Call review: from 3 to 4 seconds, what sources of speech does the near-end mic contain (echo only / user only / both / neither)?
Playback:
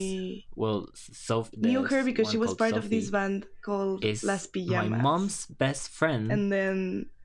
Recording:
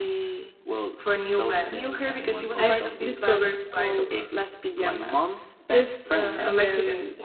both